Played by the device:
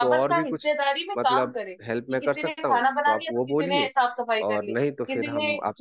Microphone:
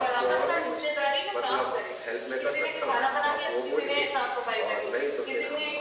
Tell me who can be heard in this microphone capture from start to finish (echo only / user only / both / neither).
echo only